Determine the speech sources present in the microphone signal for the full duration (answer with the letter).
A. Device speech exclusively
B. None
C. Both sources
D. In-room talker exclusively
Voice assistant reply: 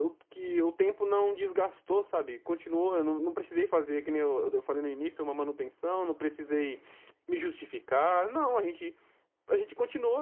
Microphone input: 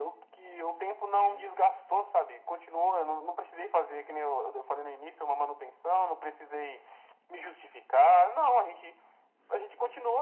A